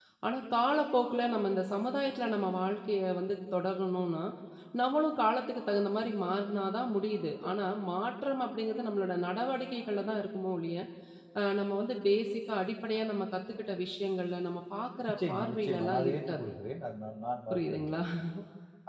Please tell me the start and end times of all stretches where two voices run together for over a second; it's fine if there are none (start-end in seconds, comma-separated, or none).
15.1-16.4